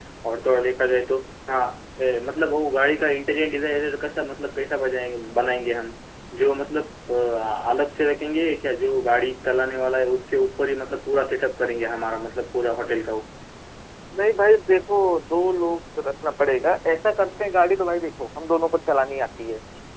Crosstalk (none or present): none